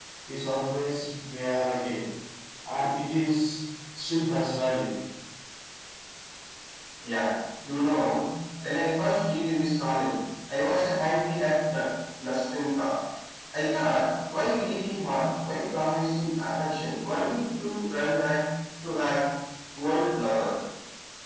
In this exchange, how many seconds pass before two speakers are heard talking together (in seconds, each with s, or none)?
none